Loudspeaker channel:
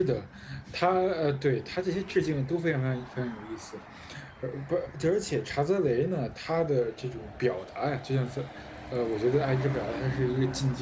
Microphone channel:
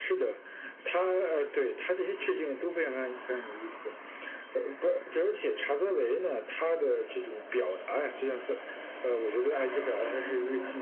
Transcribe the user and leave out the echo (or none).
none